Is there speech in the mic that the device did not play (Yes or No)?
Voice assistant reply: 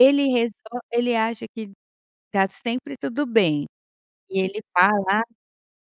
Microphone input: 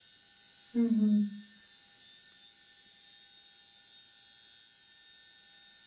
Yes